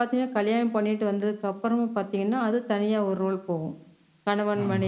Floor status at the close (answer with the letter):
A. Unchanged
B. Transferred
A